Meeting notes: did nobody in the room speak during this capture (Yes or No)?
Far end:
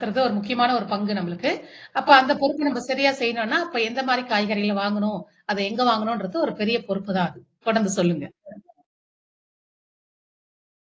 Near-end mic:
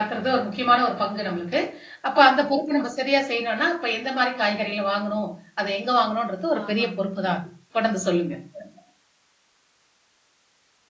No